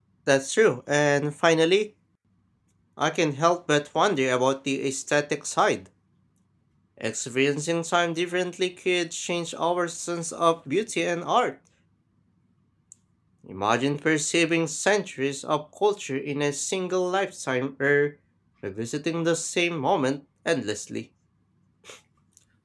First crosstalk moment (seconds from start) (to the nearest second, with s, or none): none